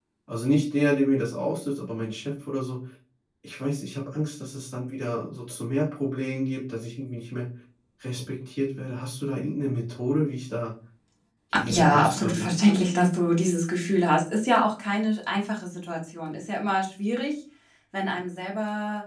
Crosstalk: present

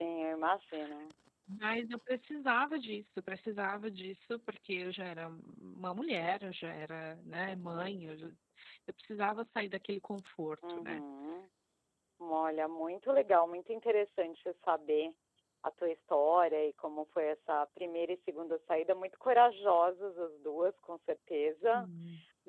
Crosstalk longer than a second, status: none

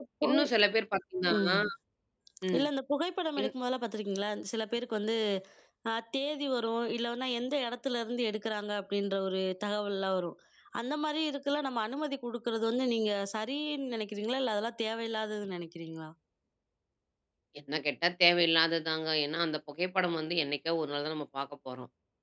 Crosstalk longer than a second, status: none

